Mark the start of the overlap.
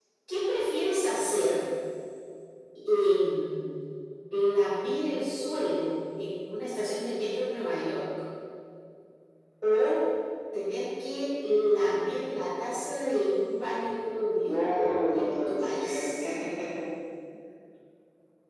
14.4 s

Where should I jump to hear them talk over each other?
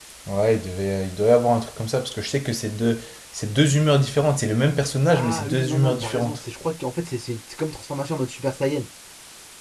5.1 s

